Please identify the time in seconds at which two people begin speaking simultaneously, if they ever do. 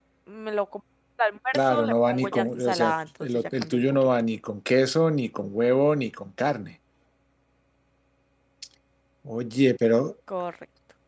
1.5 s

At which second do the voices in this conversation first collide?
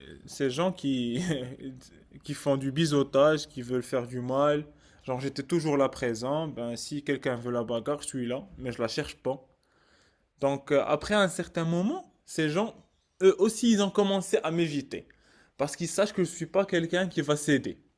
none

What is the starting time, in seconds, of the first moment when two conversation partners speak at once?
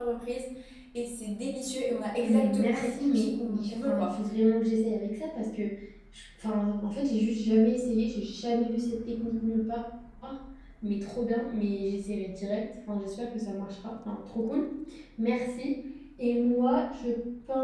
2.2 s

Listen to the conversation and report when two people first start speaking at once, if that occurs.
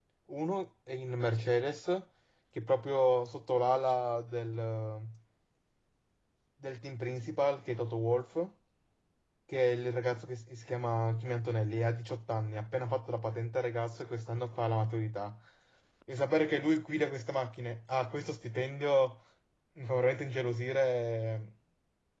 none

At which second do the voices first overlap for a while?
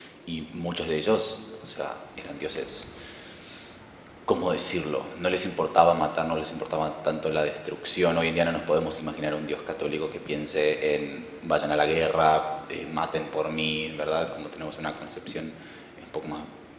none

